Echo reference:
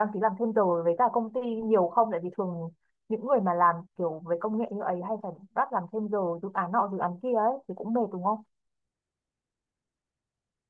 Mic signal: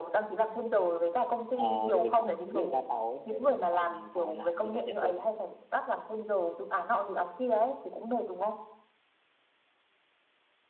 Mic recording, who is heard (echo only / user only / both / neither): both